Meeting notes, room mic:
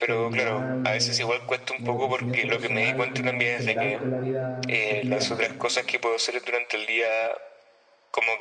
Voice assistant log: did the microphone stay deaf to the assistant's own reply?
No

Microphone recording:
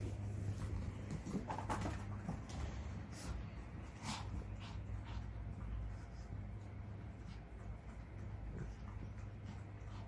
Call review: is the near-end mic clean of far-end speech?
Yes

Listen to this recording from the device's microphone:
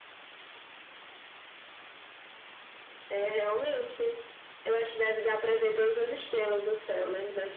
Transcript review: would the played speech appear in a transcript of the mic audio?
Yes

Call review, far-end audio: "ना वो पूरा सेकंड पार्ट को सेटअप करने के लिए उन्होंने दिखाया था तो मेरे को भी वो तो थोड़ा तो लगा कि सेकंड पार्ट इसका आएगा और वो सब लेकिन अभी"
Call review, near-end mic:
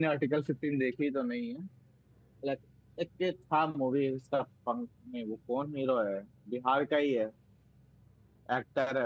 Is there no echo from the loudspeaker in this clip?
Yes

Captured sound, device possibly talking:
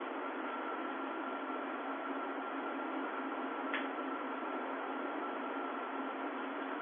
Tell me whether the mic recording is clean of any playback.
Yes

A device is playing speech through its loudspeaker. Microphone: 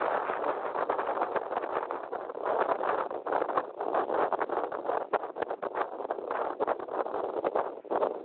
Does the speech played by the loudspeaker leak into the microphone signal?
No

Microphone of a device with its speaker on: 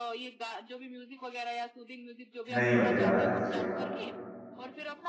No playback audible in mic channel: No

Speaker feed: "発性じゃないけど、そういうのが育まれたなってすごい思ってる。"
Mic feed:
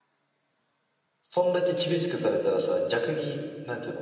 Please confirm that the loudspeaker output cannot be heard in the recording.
Yes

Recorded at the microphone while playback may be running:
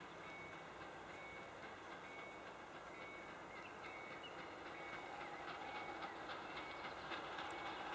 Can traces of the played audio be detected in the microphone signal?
No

